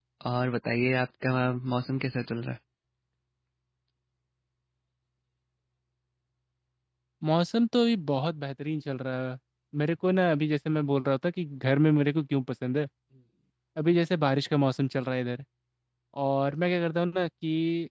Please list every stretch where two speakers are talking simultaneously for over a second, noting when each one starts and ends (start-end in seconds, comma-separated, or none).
none